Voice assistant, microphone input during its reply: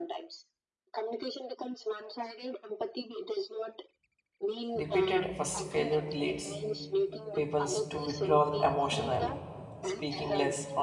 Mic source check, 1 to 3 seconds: echo only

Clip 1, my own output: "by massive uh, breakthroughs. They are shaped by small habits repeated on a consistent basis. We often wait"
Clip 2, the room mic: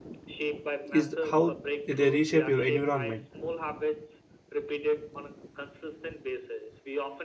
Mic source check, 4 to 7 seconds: echo only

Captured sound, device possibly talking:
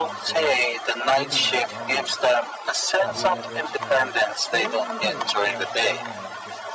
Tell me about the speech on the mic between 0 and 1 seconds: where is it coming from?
both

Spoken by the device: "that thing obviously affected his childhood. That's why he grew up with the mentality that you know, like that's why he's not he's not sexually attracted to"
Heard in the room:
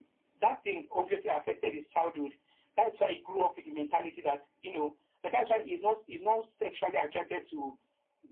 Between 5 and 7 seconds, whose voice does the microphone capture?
echo only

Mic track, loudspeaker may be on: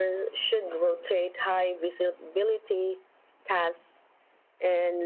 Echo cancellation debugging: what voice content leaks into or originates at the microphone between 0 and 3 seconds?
echo only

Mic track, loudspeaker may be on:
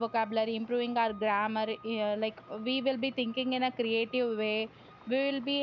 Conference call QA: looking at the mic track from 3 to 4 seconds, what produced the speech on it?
user only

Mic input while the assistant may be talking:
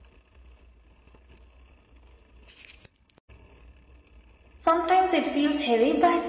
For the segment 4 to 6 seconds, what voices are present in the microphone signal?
user only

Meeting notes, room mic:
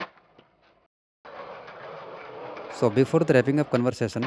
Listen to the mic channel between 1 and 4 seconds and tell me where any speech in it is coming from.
user only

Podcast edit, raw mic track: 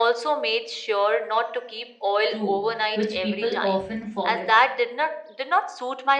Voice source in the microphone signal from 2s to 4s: both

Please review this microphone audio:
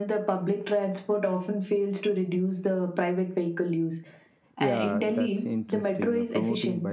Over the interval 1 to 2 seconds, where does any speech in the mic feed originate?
echo only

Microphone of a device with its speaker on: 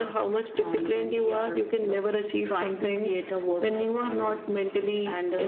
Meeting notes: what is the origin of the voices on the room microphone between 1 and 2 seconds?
echo only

